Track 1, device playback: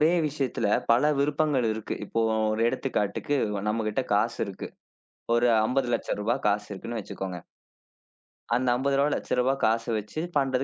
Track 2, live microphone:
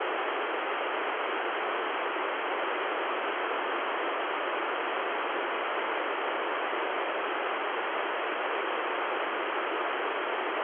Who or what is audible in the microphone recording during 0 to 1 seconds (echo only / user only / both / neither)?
neither